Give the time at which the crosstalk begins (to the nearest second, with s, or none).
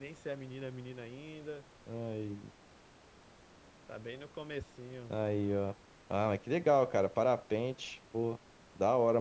none